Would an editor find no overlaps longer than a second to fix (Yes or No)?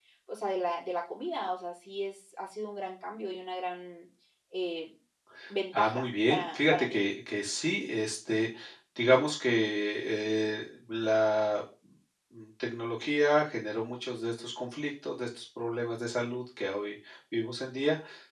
No